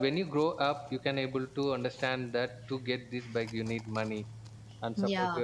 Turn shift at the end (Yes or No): No